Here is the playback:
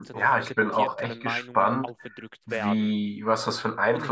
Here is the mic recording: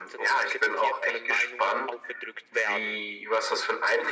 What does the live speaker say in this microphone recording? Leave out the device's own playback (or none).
none